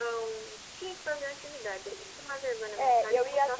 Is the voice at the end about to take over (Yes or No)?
Yes